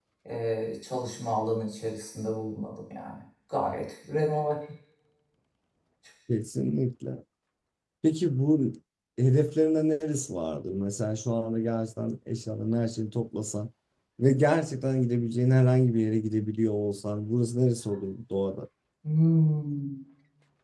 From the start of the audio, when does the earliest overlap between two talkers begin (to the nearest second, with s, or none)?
none